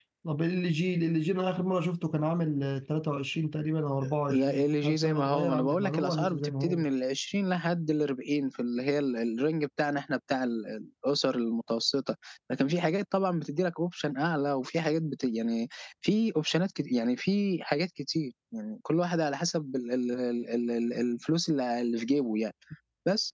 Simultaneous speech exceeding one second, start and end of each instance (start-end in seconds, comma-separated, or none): 4.3-6.8